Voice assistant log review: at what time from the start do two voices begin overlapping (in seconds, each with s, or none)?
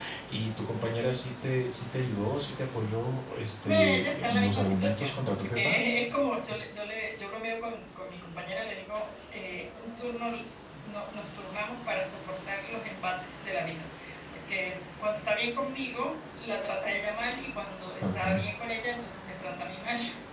3.6 s